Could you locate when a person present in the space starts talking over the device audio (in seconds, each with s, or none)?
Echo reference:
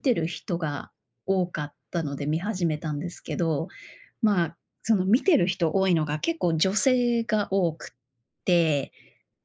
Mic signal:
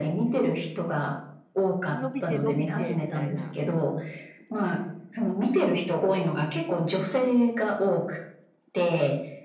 1.9 s